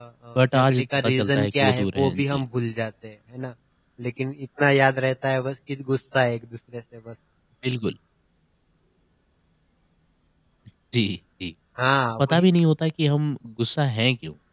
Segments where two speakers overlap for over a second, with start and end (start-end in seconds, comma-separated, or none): 0.5-2.4